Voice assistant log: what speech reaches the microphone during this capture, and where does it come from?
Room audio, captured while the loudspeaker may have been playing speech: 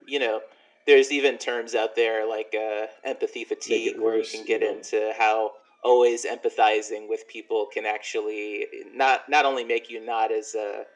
both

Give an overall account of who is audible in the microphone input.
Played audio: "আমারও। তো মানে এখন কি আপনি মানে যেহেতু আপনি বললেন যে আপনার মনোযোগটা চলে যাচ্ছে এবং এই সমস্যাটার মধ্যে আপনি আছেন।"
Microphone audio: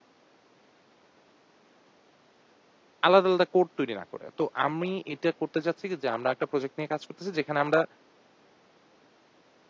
user only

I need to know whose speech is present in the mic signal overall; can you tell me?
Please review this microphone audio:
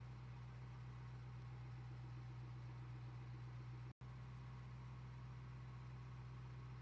neither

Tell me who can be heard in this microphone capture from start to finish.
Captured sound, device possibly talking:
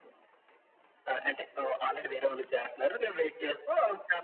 echo only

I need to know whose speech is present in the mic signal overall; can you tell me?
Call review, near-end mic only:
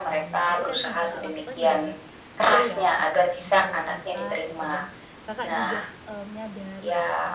both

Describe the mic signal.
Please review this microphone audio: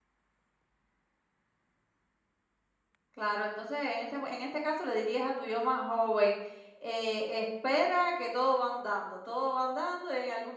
user only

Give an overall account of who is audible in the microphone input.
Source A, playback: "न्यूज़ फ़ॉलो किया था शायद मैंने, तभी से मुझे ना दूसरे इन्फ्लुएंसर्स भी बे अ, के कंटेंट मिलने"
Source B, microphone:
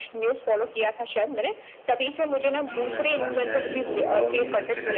both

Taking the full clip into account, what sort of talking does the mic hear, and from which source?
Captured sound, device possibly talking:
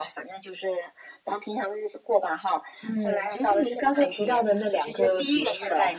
echo only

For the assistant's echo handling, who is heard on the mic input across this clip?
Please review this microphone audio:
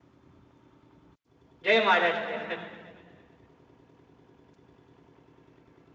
user only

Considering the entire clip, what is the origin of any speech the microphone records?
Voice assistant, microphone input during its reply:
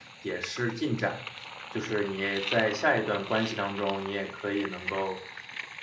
user only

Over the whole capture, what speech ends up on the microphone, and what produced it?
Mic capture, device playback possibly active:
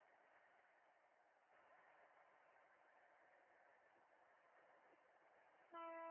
neither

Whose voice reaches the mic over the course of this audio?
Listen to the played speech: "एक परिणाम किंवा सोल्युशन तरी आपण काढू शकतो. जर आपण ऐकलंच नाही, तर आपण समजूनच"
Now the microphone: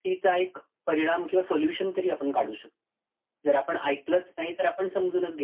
echo only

